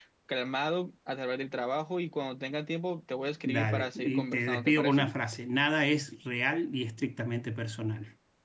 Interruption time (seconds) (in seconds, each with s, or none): 3.5 s